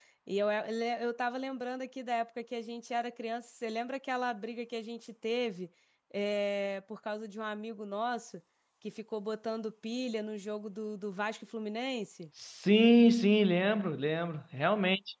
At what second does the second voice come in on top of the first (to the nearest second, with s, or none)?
none